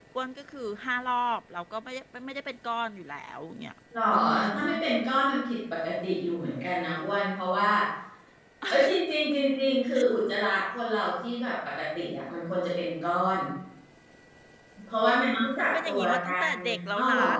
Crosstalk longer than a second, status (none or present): present